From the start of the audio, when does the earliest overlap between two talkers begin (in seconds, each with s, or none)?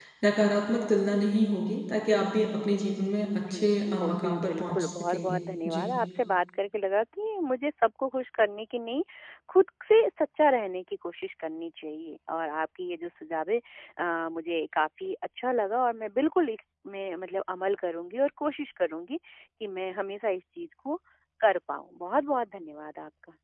3.3 s